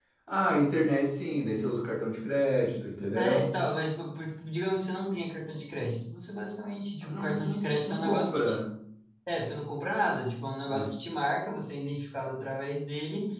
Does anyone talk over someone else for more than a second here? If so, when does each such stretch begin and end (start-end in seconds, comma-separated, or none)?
7.1-8.6